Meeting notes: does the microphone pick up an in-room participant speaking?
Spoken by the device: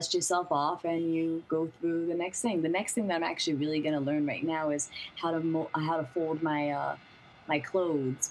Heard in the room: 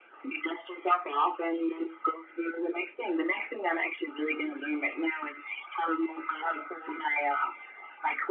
No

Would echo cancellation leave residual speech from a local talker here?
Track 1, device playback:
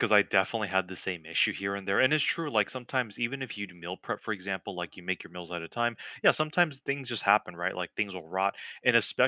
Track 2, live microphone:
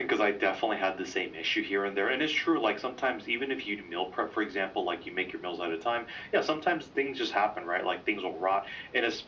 No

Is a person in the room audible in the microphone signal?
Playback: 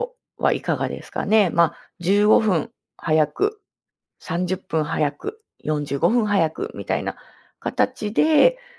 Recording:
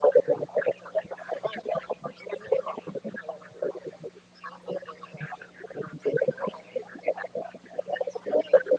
No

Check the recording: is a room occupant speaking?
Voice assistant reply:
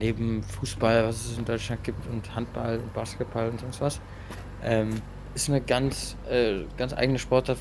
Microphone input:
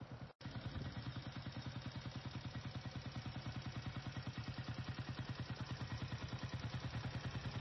No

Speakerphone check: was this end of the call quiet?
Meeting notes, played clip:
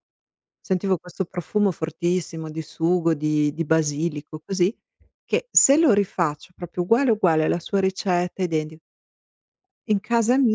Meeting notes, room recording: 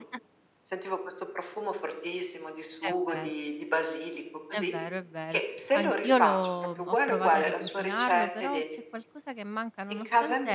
No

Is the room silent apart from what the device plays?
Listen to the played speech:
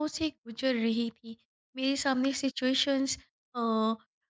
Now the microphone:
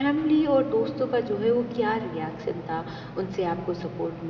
No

